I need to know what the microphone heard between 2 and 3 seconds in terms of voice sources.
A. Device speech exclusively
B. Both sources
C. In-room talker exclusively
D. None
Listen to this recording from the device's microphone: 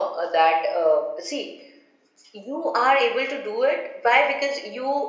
A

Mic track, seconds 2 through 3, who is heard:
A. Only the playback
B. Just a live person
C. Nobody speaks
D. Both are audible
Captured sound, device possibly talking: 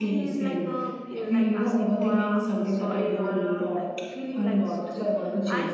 D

